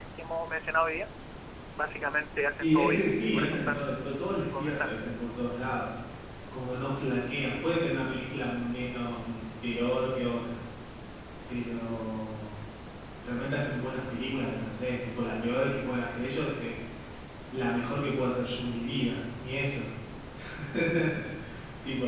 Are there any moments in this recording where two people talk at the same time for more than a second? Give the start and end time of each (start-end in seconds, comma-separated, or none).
2.6-3.9